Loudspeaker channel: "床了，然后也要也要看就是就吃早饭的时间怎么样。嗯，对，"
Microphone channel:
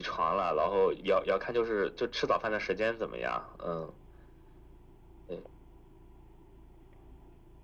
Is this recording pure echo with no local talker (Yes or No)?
Yes